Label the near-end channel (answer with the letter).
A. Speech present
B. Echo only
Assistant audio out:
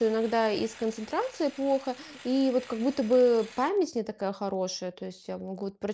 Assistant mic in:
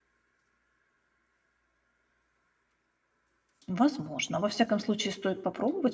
A